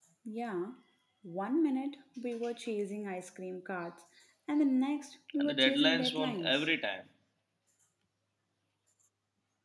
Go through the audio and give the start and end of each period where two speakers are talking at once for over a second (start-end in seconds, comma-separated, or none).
5.4-6.7